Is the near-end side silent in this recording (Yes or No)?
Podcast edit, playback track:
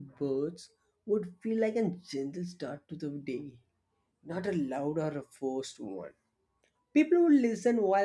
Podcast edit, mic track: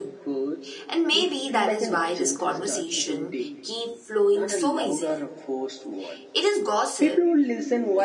No